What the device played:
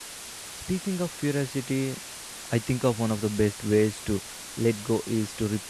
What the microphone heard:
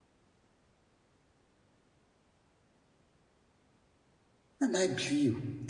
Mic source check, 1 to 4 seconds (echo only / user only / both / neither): neither